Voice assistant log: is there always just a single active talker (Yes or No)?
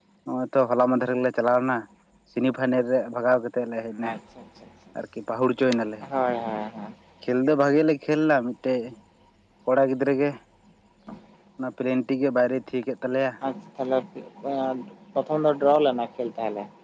Yes